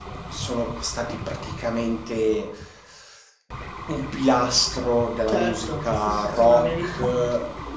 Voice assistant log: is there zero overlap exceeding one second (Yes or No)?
No